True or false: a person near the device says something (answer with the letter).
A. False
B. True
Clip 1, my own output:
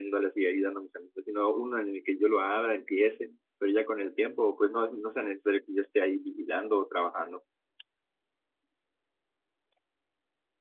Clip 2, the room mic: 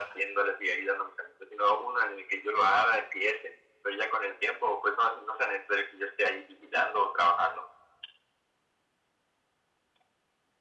A